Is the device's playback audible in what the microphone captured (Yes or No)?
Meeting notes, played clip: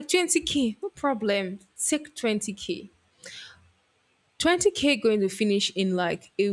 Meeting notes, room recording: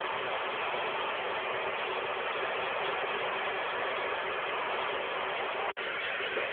No